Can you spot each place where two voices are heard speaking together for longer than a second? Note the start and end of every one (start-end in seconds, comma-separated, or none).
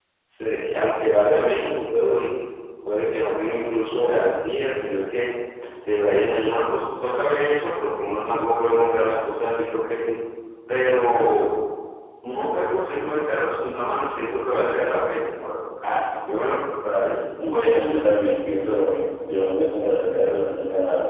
none